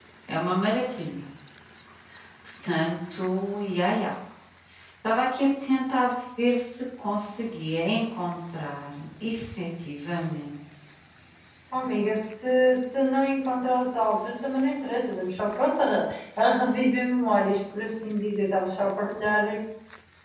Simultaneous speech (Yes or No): No